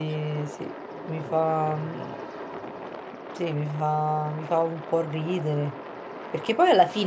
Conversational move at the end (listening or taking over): listening